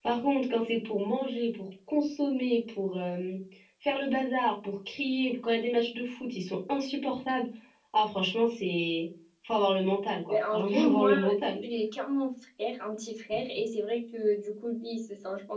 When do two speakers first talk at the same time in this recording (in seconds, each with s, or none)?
10.3 s